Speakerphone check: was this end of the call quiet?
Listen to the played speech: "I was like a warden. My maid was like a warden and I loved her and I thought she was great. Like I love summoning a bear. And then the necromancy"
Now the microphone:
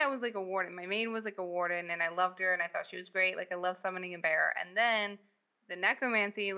Yes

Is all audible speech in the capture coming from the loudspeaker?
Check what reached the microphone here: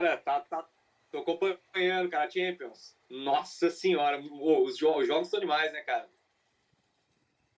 Yes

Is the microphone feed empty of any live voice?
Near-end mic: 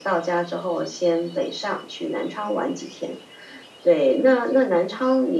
Yes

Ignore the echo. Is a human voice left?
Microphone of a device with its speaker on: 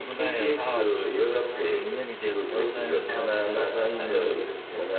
Yes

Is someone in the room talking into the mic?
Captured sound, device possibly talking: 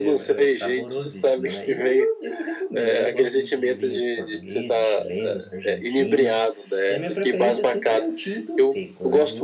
Yes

